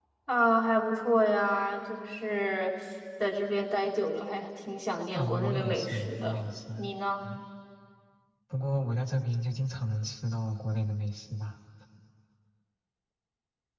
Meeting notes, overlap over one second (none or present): present